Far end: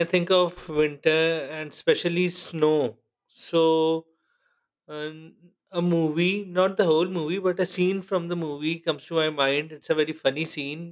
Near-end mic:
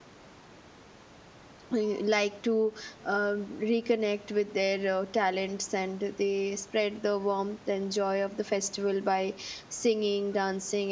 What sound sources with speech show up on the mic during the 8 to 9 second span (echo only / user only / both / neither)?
user only